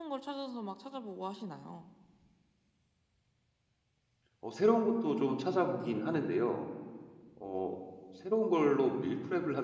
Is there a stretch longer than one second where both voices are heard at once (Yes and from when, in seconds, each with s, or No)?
No